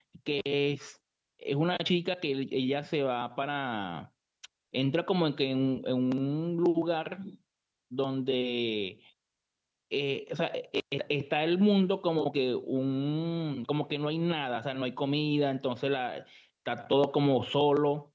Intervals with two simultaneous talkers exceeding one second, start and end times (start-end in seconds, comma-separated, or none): none